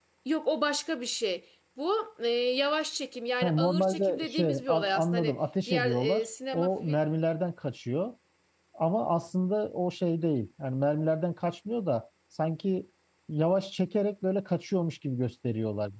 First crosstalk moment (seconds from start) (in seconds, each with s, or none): 3.4 s